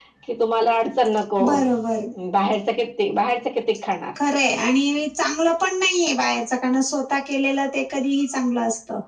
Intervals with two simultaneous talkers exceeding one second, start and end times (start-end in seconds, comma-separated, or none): none